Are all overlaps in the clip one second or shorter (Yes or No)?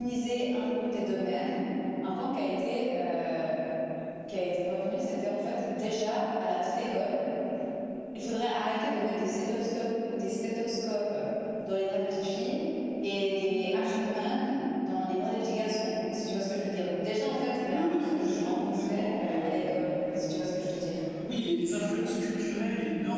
No